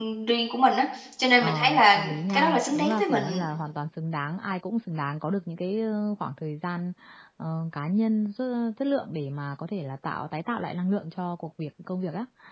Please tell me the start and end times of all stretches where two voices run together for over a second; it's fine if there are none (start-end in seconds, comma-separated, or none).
1.4-3.4